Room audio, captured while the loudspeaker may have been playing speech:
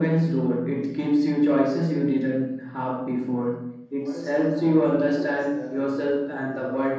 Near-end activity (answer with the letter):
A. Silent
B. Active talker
B